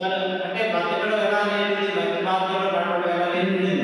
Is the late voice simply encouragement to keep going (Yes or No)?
No